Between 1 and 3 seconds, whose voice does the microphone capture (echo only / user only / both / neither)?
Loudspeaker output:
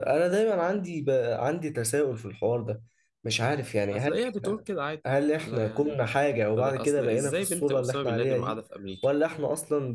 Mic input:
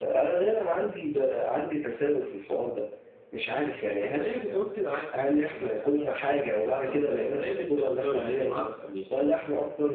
echo only